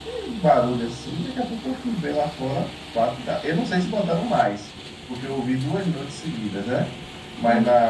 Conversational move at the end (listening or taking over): listening